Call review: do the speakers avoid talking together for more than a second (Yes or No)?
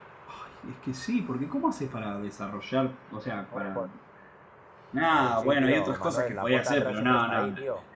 No